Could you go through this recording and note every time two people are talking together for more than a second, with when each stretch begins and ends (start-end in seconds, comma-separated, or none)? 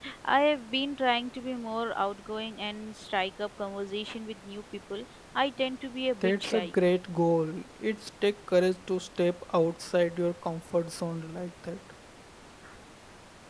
none